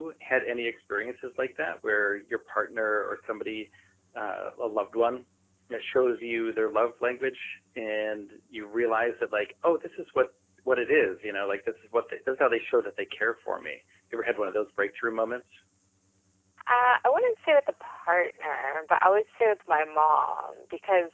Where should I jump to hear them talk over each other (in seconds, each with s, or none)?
none